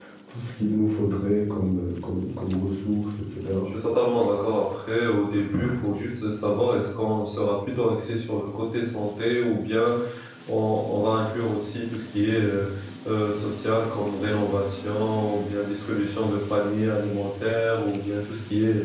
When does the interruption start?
none

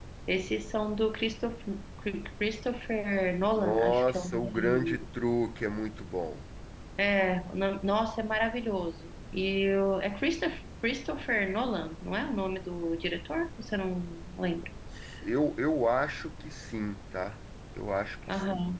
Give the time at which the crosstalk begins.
3.5 s

